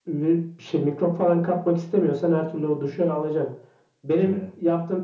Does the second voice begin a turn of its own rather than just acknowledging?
No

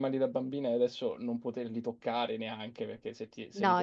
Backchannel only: No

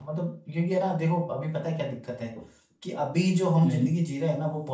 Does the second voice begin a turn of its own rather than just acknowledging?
No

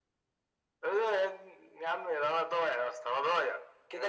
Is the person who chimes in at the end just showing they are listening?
No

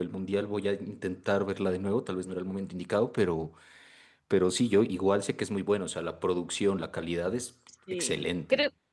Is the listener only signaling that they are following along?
No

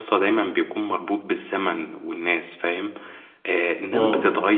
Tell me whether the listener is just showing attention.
Yes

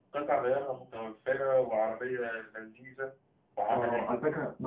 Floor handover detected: Yes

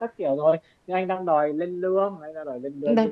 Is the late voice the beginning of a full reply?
Yes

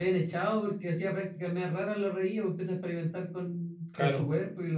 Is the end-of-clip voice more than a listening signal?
No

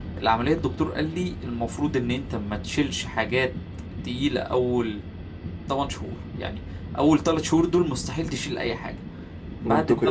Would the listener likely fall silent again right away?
Yes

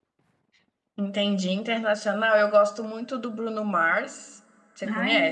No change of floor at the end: No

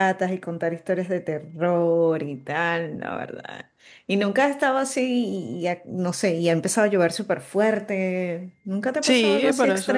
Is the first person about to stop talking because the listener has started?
Yes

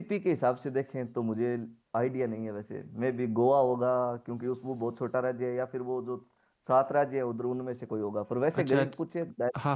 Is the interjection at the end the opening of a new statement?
Yes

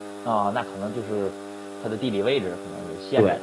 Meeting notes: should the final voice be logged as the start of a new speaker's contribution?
Yes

